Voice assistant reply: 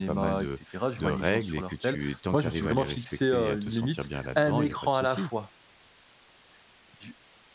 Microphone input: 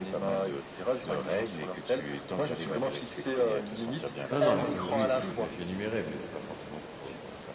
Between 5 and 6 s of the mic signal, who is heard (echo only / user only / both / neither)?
both